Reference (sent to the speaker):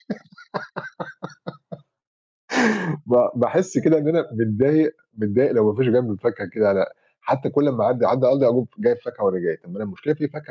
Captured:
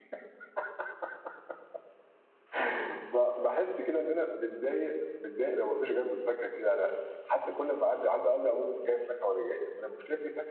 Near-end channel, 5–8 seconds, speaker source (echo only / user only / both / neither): echo only